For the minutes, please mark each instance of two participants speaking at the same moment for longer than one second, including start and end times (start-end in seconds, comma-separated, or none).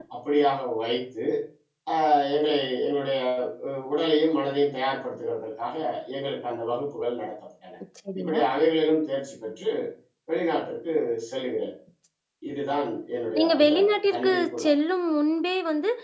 13.4-14.7